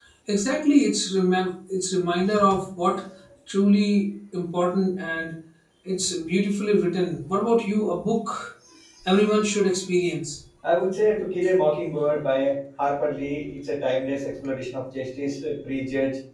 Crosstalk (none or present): none